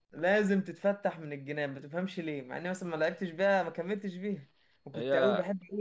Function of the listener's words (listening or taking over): listening